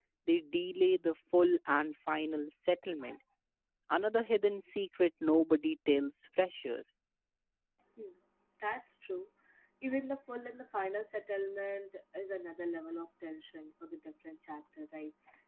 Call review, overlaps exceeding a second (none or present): none